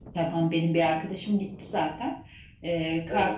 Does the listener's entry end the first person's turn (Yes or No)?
No